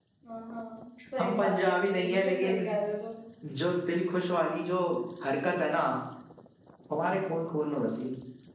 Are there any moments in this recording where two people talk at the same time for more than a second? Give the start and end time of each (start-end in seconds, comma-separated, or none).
1.2-2.7